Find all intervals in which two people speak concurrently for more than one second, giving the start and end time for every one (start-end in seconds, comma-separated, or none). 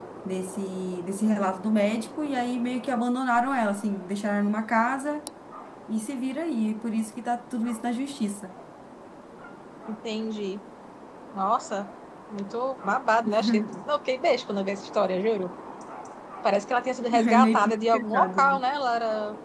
17.3-18.6